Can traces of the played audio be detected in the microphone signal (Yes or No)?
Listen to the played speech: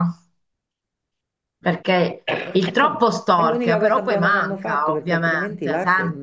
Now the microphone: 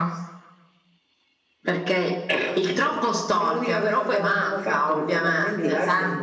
Yes